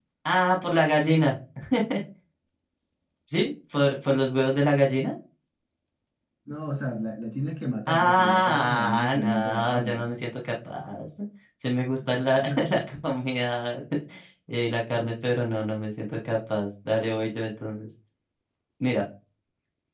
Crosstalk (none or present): present